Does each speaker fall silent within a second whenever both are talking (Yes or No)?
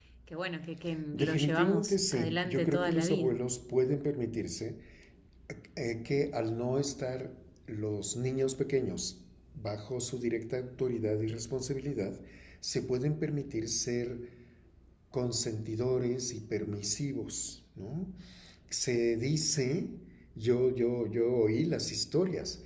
No